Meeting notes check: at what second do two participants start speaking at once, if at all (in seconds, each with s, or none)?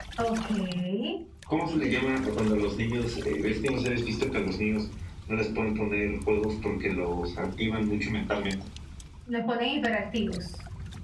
none